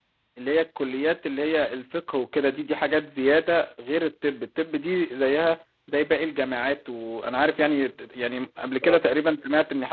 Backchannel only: Yes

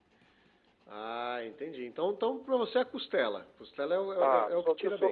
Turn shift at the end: Yes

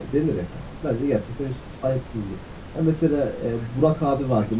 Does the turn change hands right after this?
No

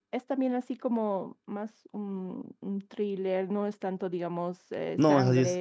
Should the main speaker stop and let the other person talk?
Yes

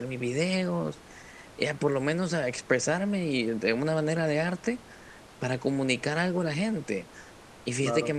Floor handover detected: No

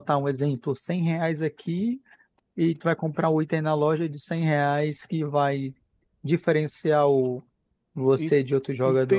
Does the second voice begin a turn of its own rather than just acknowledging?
Yes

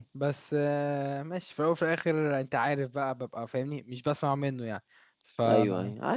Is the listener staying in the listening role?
No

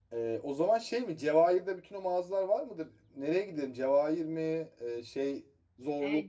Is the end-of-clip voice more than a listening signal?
Yes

